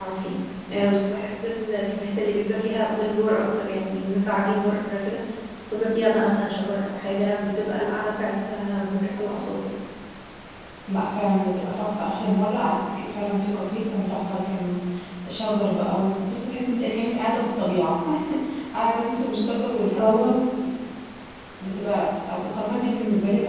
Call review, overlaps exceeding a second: none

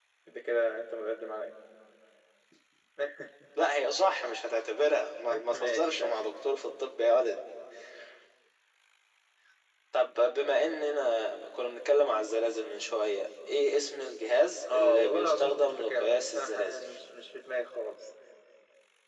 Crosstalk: present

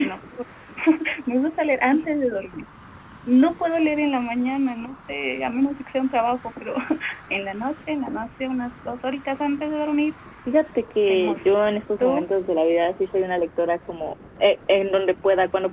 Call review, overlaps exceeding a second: none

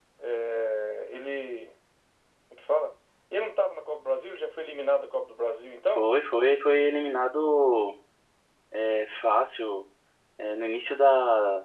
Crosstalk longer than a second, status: none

